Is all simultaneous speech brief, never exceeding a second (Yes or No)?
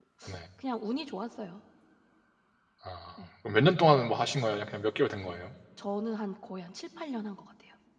Yes